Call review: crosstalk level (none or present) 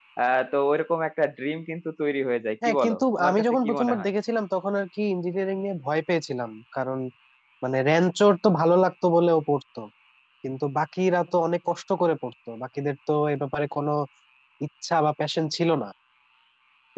present